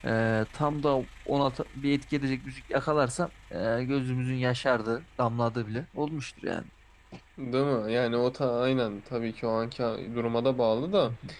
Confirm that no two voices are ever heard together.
Yes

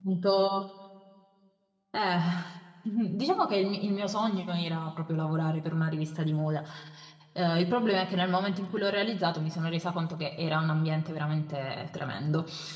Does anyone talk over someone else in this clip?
No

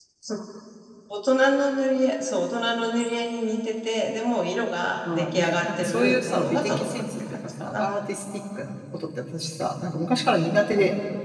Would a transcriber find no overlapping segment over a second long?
No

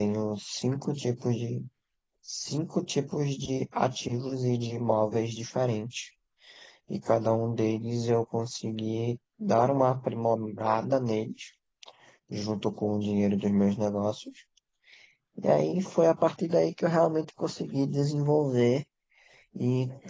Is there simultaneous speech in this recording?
No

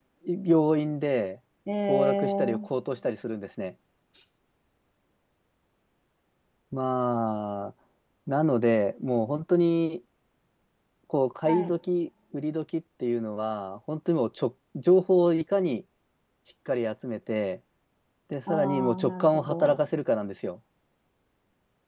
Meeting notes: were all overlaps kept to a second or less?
No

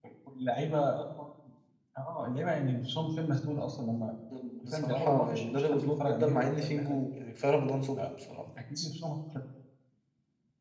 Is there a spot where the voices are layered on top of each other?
Yes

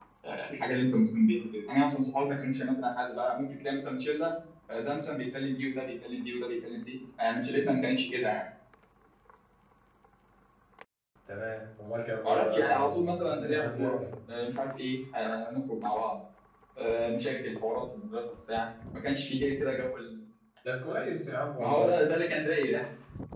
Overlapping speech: Yes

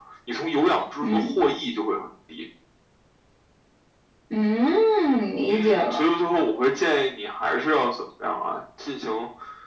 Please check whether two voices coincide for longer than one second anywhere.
No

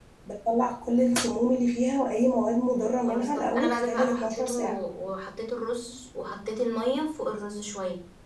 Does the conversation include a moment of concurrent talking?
Yes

